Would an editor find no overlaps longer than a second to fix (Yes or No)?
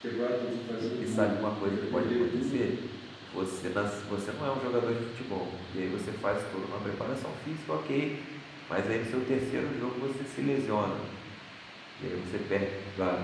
No